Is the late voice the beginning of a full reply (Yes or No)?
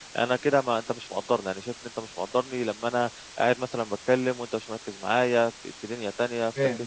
Yes